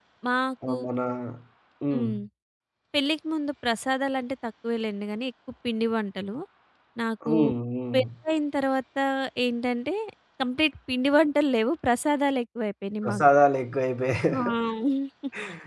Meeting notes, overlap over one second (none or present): none